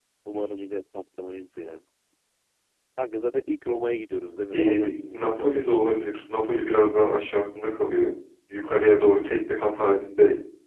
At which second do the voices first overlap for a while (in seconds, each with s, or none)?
4.5 s